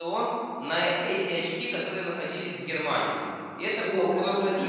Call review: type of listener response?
taking over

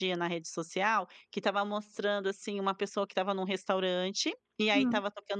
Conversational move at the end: listening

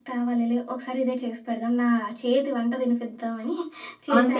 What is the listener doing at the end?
taking over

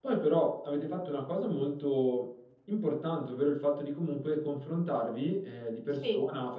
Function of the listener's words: listening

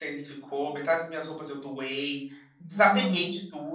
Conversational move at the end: listening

